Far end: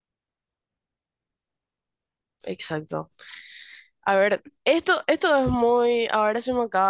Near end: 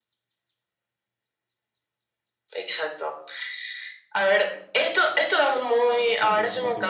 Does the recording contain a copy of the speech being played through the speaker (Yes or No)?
Yes